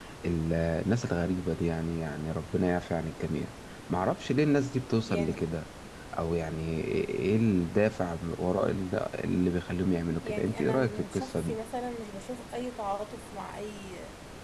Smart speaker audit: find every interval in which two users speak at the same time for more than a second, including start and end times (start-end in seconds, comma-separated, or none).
10.2-11.6